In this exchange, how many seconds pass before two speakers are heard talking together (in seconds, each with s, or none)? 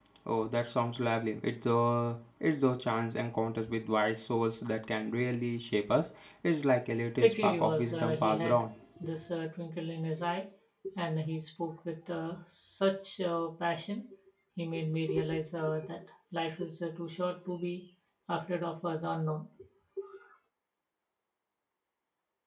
7.2 s